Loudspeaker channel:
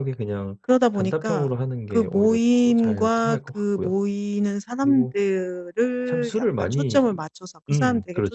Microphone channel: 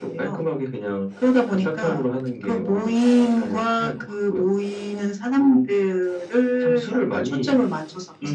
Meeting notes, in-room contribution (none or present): none